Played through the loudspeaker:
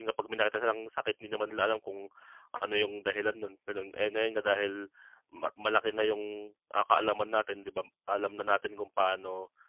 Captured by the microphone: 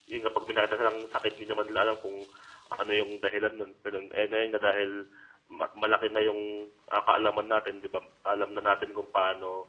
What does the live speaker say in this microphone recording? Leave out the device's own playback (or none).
none